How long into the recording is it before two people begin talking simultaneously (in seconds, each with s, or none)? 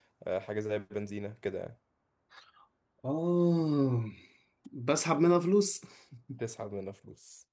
none